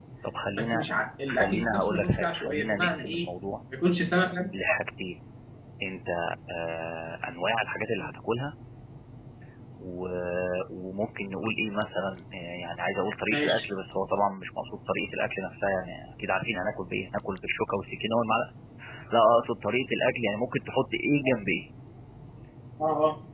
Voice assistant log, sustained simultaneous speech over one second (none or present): present